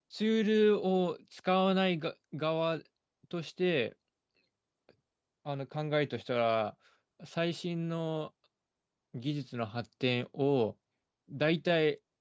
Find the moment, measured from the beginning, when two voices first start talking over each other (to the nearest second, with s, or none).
none